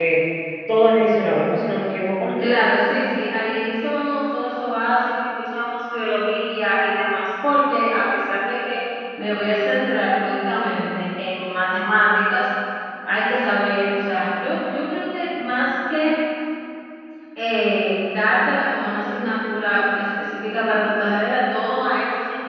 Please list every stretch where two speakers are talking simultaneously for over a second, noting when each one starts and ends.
none

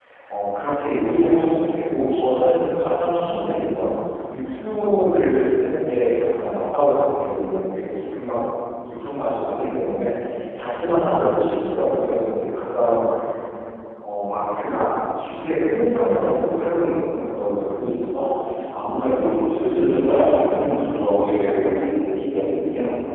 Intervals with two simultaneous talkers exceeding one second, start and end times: 19.2-21.8

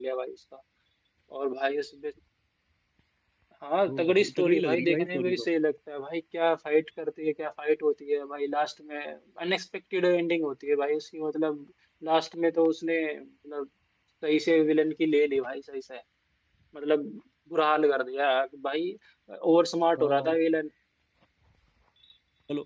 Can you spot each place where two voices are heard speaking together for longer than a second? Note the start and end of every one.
3.9-5.4

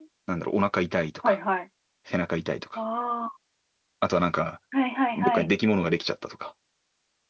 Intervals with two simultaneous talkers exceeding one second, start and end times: none

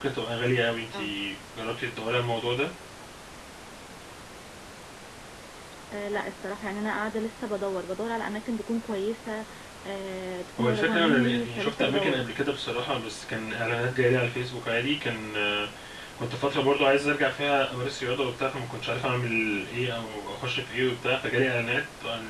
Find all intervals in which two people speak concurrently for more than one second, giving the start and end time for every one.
10.6-12.2

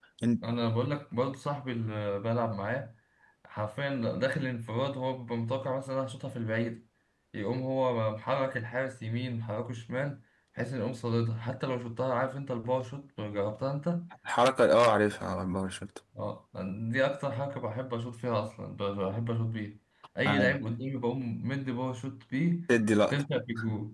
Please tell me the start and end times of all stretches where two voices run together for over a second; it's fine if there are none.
none

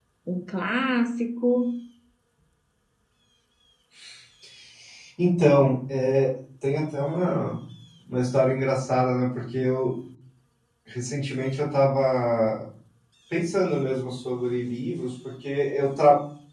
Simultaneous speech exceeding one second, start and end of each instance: none

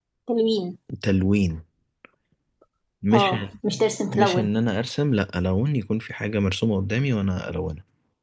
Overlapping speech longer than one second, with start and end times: none

